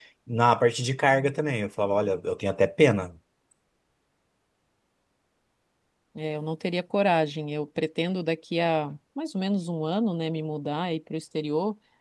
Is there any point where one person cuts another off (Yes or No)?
No